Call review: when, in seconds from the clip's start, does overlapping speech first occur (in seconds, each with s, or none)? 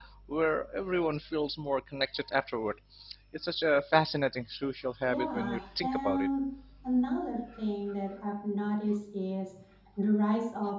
5.1 s